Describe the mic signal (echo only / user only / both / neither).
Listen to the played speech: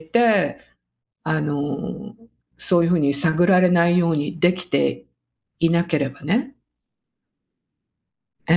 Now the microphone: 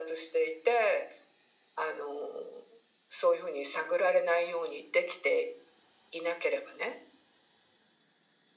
echo only